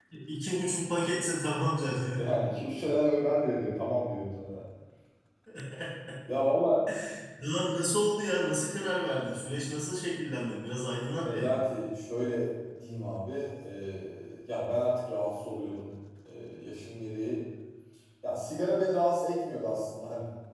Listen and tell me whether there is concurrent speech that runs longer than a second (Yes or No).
No